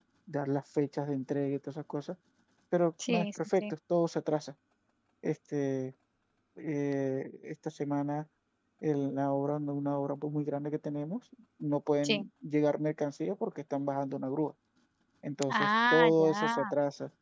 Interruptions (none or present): present